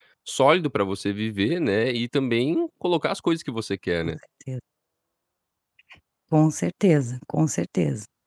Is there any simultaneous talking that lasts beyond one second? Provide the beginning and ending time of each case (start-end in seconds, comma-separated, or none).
none